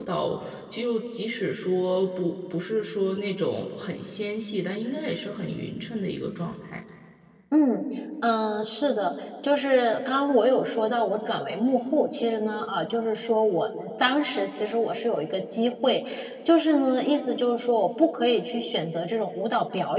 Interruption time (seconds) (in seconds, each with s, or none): none